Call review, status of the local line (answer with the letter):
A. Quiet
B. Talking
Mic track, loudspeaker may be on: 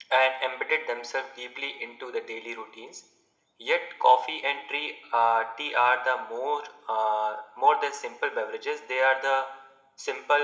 A